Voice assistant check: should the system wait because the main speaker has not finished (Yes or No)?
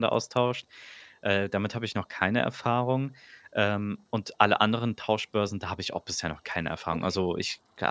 Yes